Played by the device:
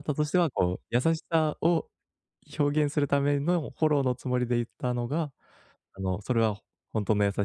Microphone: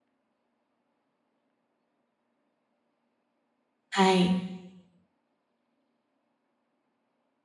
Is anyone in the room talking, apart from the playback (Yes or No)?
Yes